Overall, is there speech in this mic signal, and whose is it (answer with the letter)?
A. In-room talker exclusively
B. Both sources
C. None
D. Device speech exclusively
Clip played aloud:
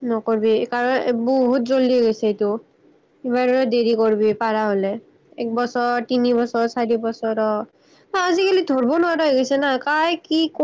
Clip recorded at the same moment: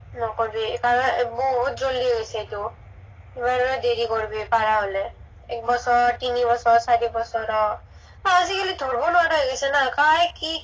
D